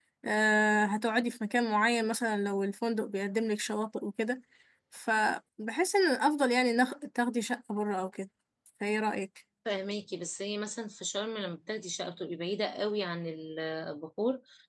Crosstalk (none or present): none